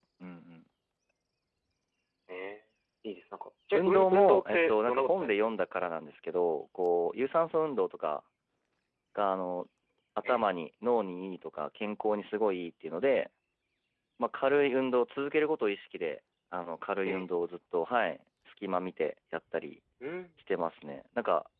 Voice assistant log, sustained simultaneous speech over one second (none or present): present